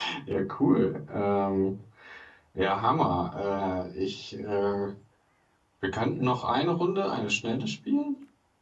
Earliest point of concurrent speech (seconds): none

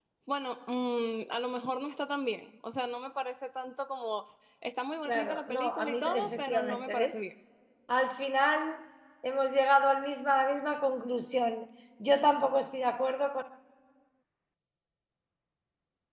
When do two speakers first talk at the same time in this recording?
5.0 s

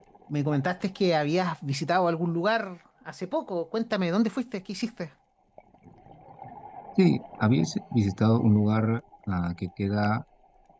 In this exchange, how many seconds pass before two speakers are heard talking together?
none

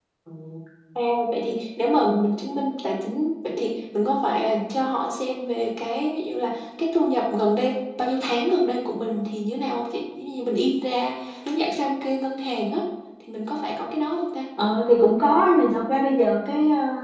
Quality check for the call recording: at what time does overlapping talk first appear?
none

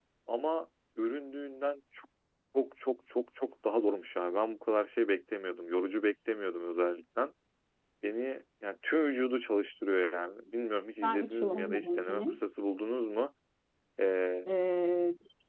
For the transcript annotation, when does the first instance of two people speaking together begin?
11.0 s

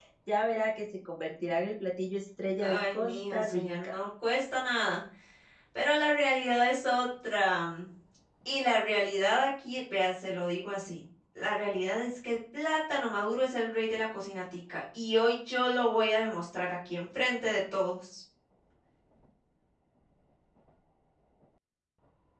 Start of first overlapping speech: 2.6 s

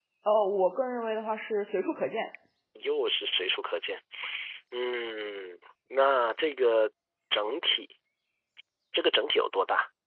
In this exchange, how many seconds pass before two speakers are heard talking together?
none

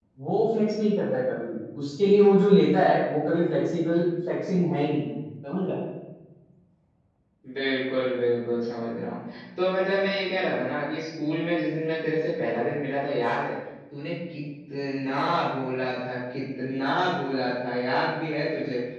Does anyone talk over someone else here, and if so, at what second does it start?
none

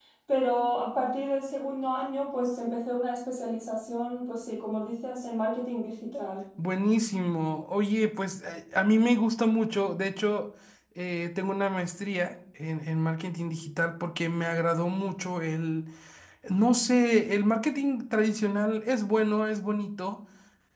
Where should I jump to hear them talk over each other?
none

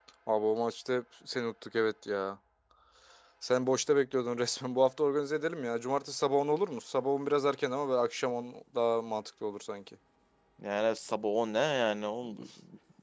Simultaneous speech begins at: none

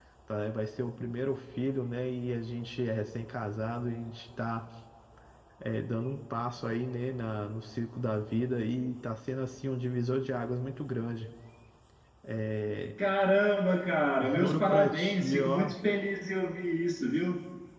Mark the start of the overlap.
14.2 s

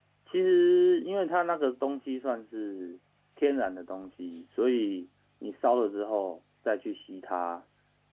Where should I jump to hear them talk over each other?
none

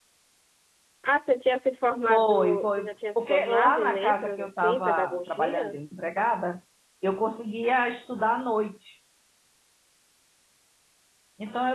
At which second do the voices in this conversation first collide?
2.1 s

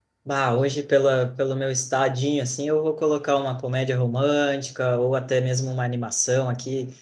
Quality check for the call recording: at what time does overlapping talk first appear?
none

